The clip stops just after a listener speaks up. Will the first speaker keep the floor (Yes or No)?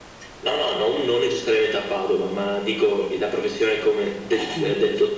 Yes